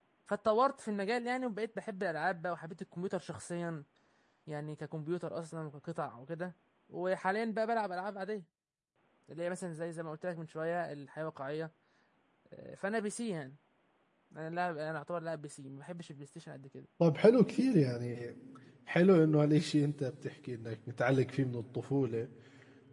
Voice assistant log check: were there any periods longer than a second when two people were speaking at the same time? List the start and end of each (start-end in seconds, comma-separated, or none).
none